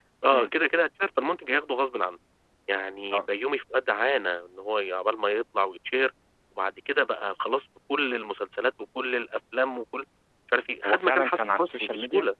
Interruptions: present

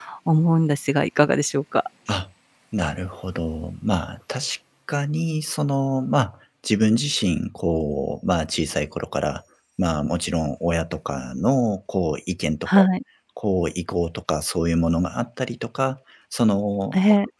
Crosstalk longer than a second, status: none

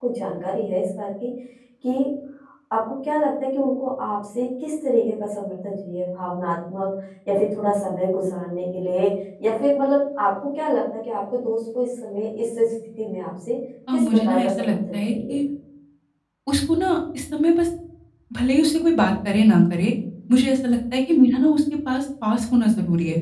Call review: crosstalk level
present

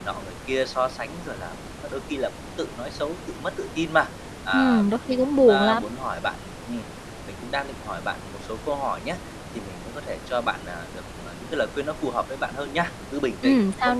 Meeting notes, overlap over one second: present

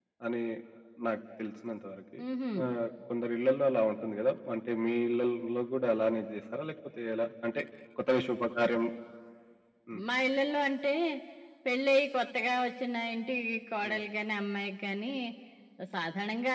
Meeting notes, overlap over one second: none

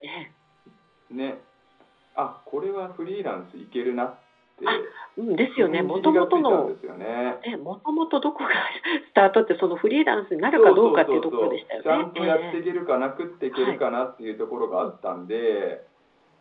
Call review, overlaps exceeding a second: present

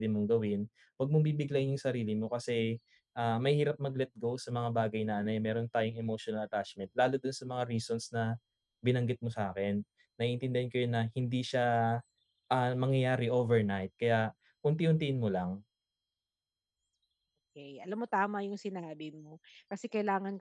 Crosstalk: none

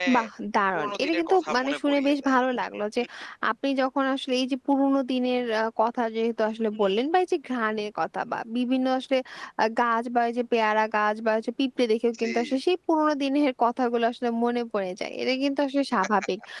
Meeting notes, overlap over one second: present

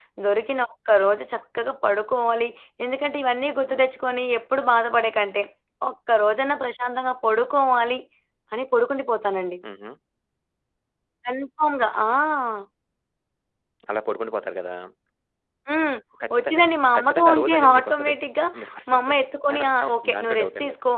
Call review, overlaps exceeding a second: present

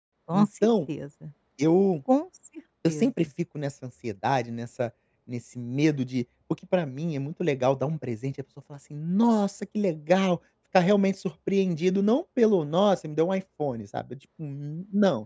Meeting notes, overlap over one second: none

